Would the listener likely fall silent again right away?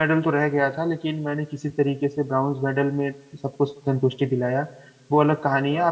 Yes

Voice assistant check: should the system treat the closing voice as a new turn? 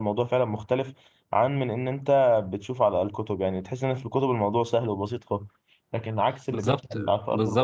Yes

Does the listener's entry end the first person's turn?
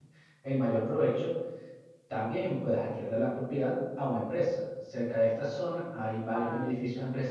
No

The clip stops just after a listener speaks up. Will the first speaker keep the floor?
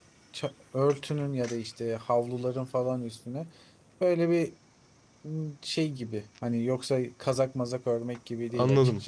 No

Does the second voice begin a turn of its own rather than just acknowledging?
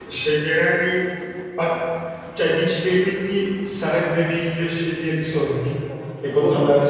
Yes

